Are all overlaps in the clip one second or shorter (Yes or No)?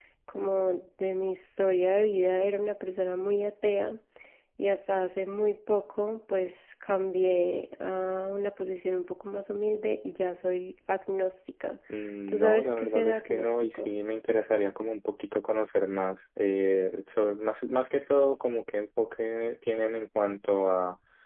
No